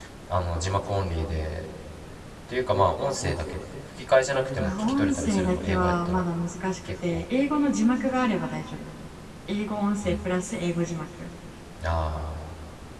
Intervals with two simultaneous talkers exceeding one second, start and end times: 4.6-6.2

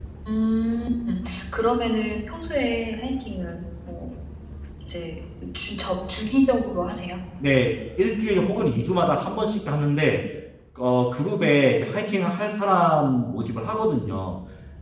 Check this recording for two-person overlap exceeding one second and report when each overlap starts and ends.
none

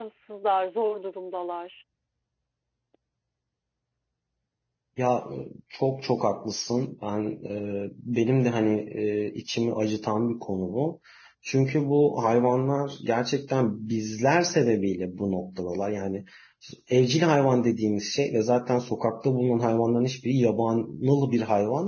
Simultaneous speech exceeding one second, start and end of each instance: none

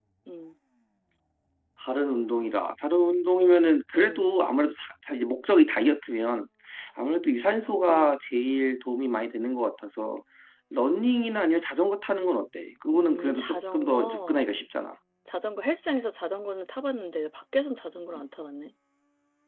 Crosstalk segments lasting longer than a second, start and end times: 12.9-14.4

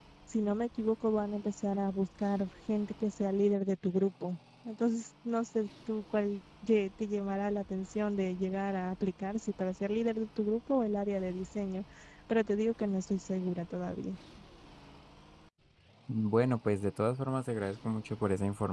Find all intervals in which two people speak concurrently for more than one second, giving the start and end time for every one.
none

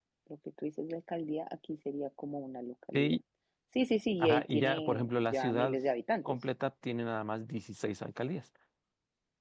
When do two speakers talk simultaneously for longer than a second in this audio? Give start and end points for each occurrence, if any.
4.2-5.8

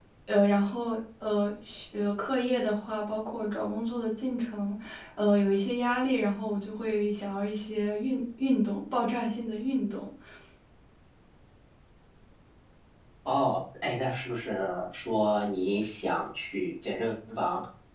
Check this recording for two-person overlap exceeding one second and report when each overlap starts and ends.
none

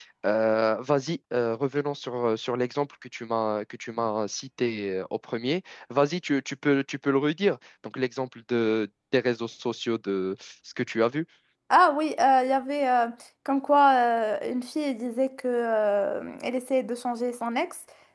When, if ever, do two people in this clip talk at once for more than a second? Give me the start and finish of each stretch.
none

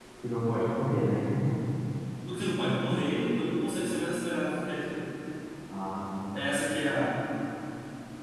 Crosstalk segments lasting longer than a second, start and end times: none

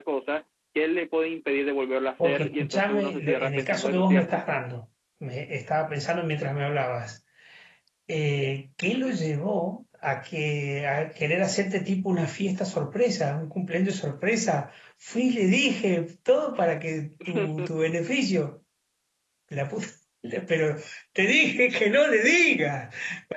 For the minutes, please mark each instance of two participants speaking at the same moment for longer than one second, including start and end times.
2.2-4.4

